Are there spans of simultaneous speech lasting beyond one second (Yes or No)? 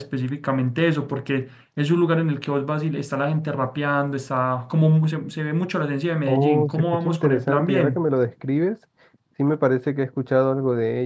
Yes